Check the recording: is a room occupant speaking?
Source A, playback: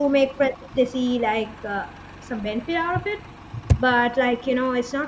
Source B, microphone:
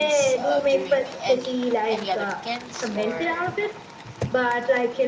Yes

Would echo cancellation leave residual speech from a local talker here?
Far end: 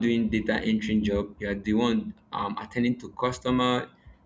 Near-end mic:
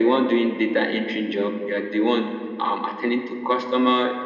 No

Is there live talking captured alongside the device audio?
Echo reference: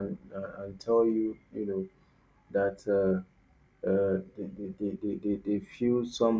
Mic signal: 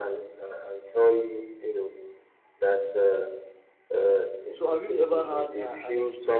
Yes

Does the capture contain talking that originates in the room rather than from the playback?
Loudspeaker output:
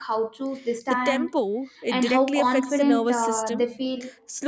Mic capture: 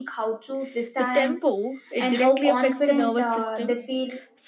No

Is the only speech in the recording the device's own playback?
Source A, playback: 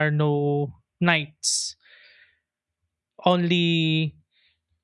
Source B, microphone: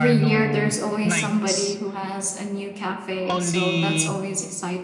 No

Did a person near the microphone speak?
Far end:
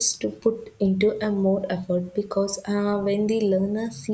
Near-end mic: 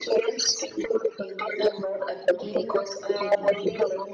Yes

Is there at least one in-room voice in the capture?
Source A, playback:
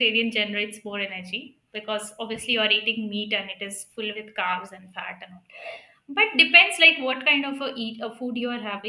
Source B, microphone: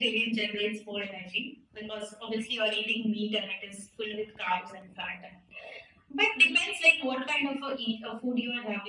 No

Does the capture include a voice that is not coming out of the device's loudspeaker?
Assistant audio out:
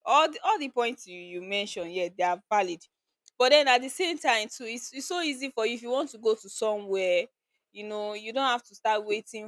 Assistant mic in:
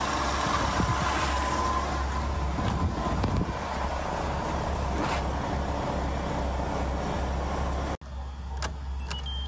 No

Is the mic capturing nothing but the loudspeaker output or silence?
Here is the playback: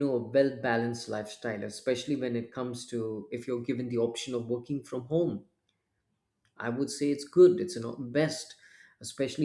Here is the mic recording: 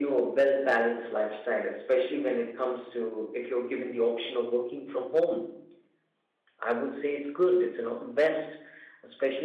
Yes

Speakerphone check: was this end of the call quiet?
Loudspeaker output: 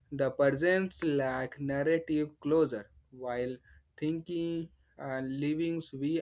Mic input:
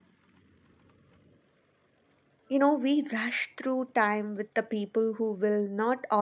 No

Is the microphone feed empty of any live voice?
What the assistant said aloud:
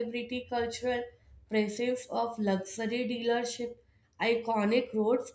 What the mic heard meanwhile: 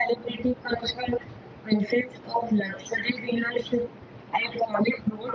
Yes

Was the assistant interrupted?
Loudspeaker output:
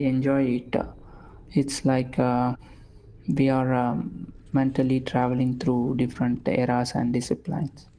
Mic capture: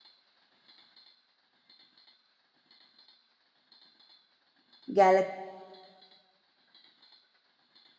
Yes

